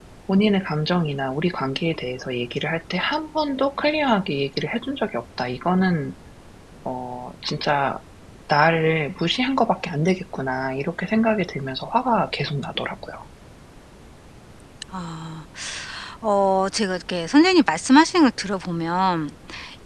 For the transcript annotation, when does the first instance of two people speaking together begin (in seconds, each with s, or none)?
none